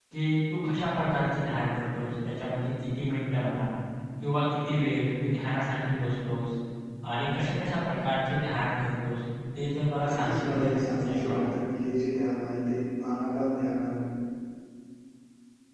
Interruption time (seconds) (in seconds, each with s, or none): 10.0 s